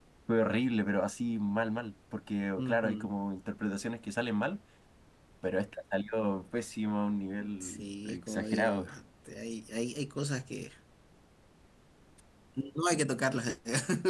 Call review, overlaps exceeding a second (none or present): present